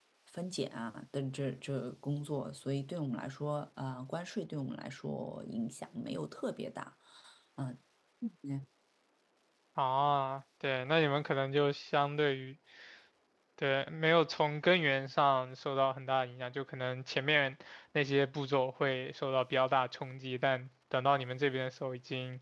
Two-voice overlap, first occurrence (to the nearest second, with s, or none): none